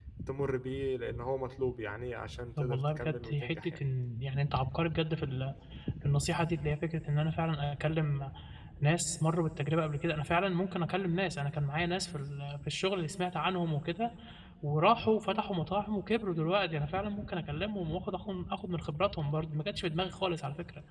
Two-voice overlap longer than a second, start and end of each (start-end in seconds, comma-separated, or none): 2.6-3.8